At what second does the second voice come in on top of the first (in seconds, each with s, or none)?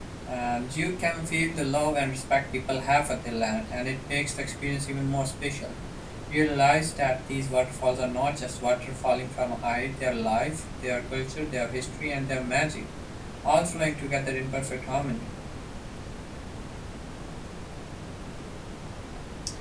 none